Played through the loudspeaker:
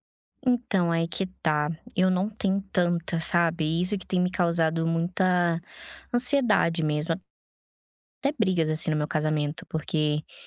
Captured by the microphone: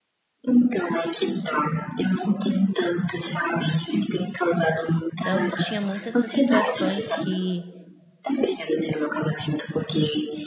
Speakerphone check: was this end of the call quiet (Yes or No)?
No